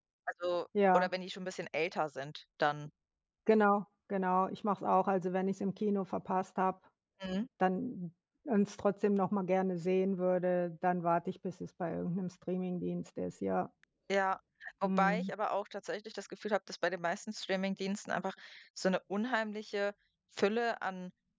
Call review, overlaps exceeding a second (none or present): none